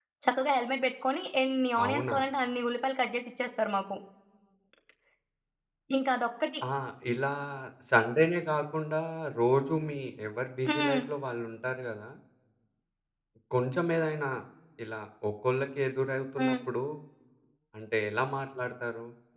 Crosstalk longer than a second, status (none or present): none